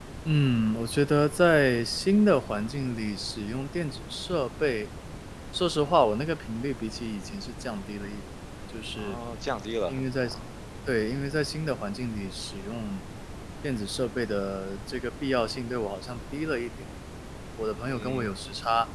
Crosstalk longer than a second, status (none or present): none